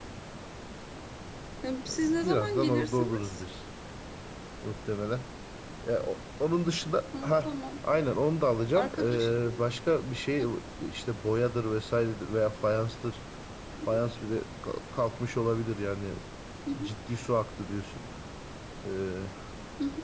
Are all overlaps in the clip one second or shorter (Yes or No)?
No